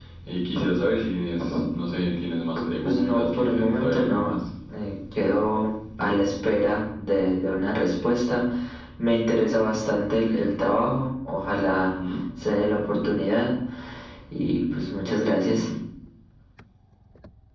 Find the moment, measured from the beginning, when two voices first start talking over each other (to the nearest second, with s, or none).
3 s